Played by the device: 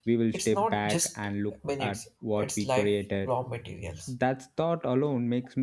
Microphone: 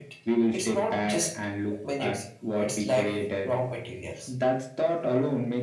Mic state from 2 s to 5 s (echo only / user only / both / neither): echo only